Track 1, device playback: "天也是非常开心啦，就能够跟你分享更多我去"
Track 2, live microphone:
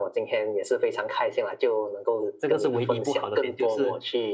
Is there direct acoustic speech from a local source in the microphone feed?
Yes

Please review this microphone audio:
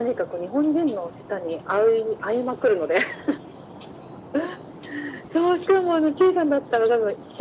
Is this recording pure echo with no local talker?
Yes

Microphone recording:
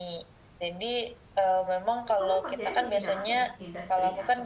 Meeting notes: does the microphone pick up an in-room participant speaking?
Yes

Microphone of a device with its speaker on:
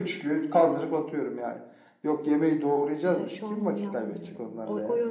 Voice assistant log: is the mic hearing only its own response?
No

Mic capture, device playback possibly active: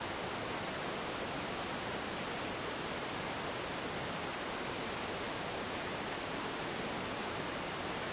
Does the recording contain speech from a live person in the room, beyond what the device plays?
No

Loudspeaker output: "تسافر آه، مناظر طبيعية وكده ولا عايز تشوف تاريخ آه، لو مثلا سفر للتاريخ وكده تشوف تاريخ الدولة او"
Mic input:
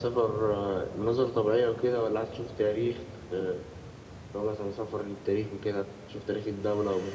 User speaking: No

